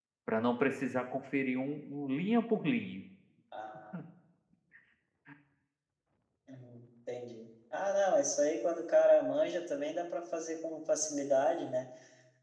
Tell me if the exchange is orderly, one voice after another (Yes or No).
Yes